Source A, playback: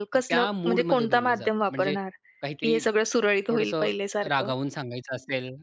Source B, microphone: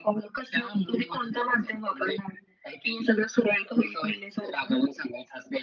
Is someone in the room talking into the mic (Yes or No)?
No